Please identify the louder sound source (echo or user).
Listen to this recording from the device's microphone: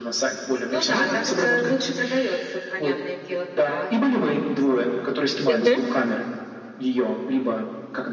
user